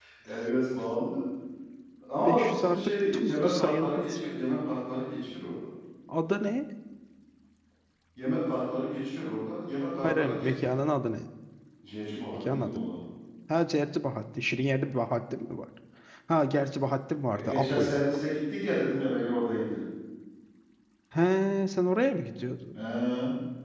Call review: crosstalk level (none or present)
present